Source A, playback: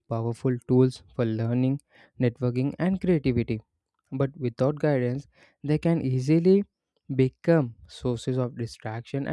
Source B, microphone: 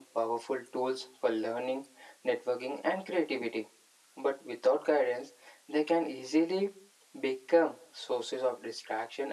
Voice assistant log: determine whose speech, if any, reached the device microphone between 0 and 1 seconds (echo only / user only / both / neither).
echo only